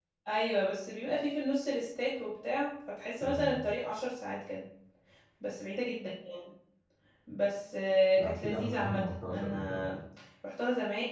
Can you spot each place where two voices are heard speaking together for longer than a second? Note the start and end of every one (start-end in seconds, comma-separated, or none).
8.2-9.9